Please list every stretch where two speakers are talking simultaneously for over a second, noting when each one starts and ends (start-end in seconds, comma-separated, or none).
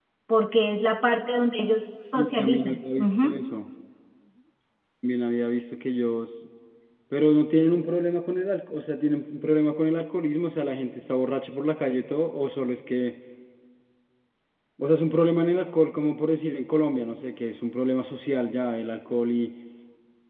2.2-3.4